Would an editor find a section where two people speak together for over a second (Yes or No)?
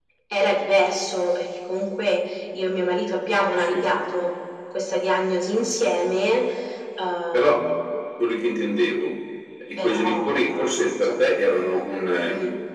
Yes